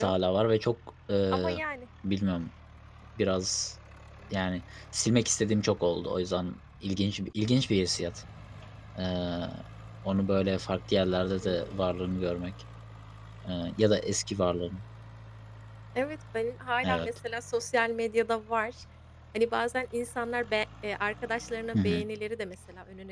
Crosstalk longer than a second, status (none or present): none